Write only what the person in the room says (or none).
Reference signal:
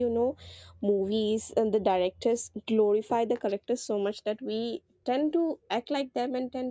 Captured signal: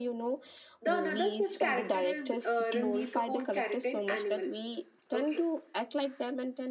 The another such character is uh, Ranbir Kapoor's character in Animal. Okay.